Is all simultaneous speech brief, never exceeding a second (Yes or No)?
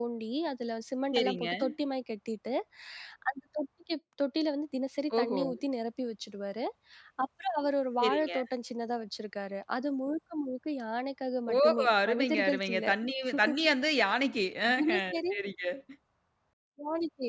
No